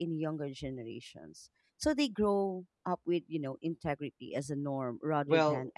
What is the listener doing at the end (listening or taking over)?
taking over